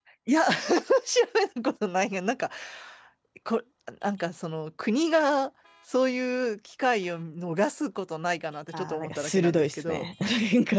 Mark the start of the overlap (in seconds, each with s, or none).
8.7 s